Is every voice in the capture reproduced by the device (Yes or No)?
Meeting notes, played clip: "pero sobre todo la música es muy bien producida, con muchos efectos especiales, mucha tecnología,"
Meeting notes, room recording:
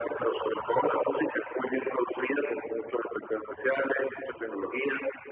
Yes